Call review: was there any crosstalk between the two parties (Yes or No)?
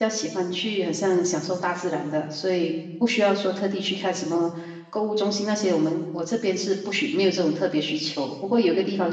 No